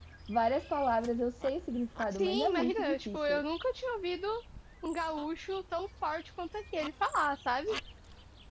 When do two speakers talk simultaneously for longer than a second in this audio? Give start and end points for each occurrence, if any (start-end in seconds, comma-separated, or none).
2.1-3.4